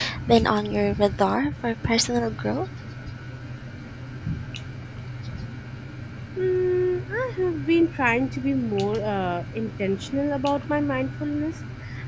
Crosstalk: none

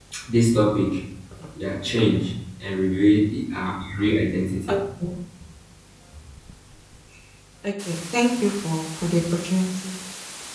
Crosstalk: none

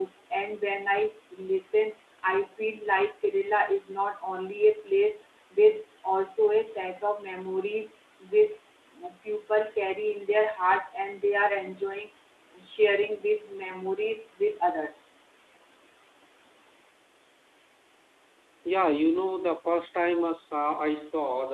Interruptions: none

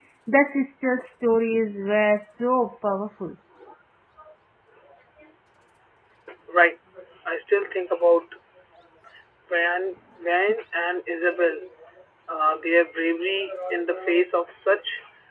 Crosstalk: none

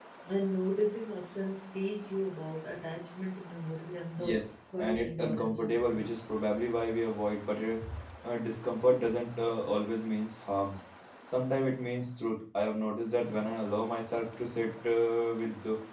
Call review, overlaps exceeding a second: present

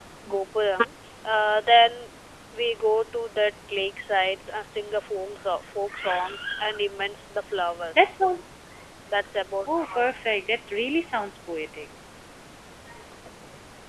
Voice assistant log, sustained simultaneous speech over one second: none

